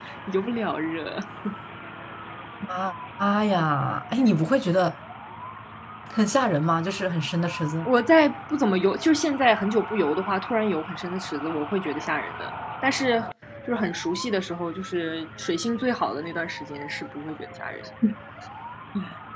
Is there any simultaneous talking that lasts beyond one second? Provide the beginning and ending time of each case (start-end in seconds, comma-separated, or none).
none